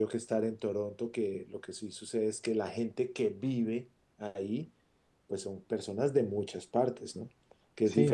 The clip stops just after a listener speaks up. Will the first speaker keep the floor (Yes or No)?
No